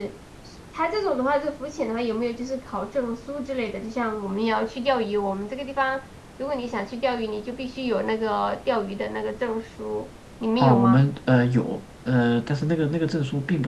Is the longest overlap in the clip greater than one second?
No

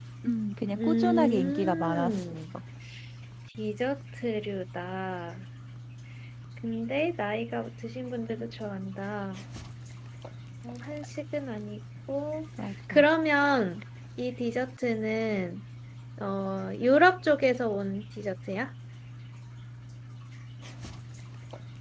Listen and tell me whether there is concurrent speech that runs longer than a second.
Yes, from 0.8 s

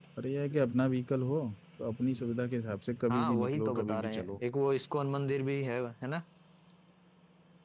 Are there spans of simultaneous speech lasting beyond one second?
Yes, from 3.1 s

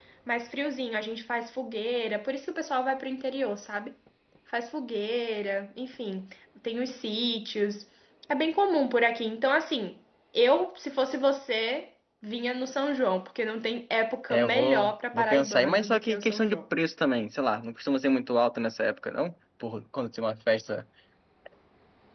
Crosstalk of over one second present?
Yes, from 14.3 s

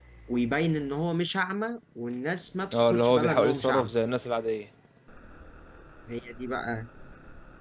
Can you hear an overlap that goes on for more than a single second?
Yes, from 2.7 s

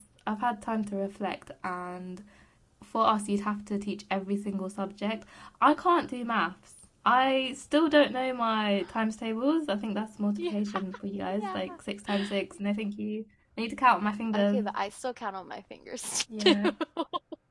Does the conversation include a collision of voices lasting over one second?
No

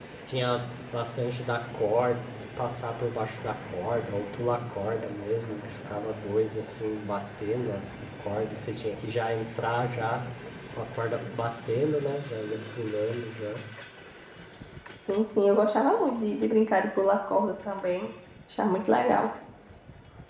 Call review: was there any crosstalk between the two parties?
No

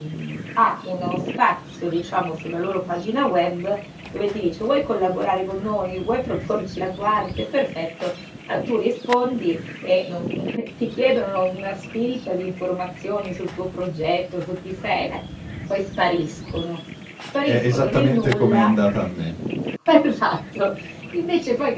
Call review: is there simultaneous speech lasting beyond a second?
Yes, from 17.5 s

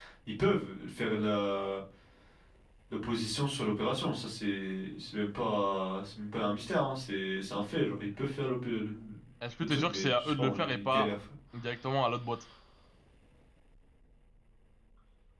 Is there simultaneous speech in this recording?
Yes, from 9.6 s

